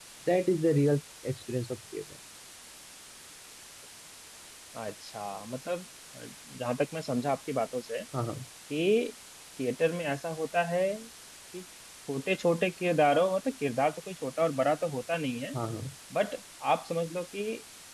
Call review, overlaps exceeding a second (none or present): none